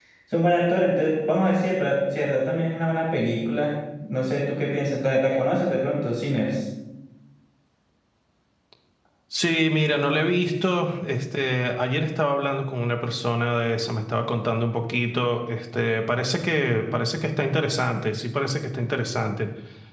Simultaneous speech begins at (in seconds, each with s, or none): none